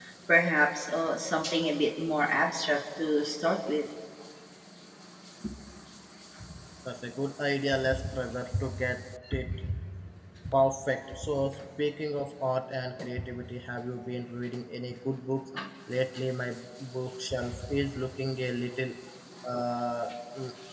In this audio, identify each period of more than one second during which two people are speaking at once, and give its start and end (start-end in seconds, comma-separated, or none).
none